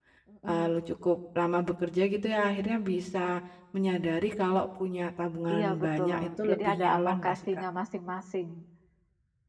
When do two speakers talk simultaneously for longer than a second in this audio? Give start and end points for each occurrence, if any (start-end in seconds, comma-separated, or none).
5.5-7.4